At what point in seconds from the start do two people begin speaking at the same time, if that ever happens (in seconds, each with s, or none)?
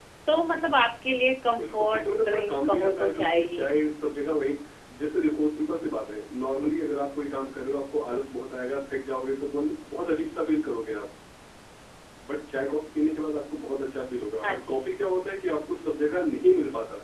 1.6 s